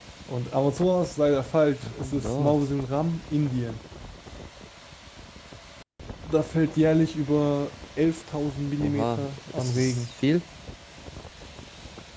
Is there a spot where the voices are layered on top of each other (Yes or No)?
Yes